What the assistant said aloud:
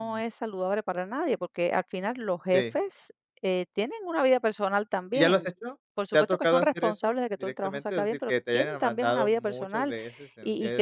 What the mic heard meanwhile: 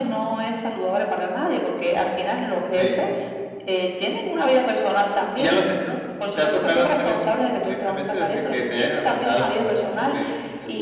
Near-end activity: present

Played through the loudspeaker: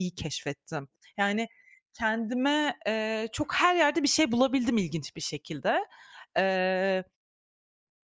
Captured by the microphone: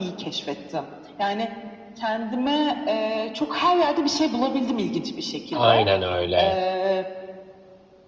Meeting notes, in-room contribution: present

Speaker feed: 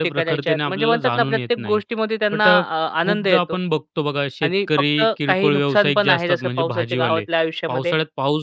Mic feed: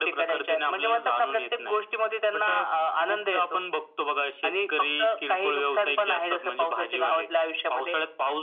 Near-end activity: none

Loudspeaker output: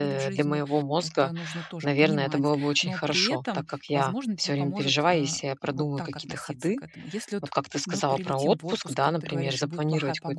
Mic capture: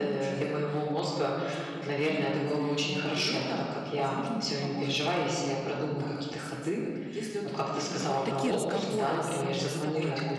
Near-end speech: present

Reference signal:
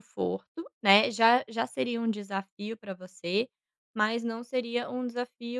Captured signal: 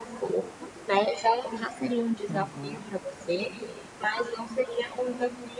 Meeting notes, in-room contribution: present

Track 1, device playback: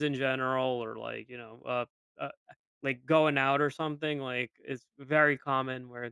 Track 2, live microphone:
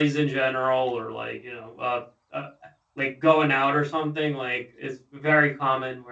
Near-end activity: none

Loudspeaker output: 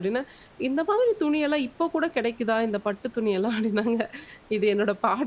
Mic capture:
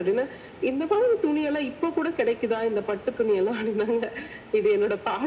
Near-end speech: none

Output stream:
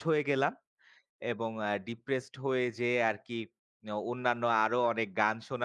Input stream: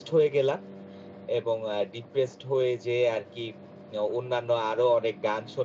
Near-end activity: none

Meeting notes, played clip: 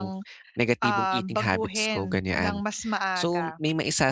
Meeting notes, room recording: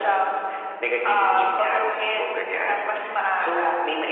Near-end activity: none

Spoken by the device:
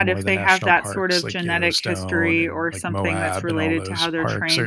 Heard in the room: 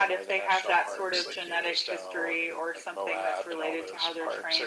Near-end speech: none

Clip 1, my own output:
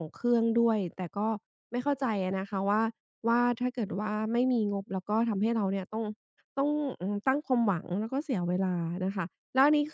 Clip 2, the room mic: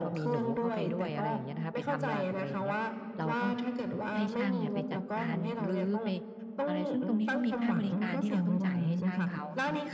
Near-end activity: present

